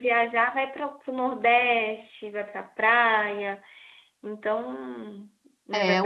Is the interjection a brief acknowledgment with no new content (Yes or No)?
No